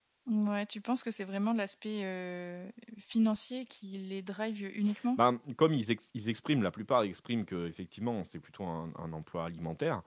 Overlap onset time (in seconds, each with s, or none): none